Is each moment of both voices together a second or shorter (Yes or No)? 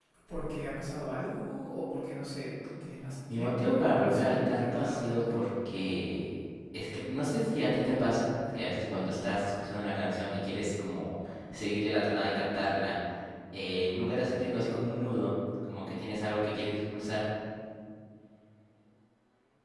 No